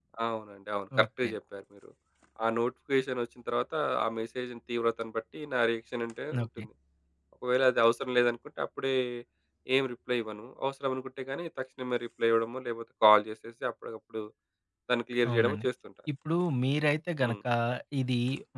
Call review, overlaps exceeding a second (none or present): none